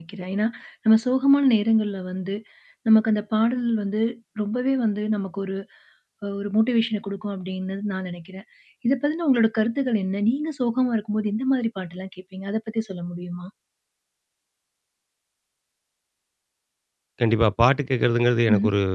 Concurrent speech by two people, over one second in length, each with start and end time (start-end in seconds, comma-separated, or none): none